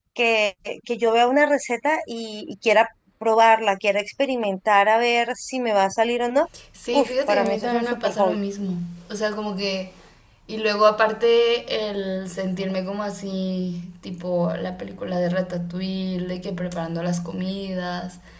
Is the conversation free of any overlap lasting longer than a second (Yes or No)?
No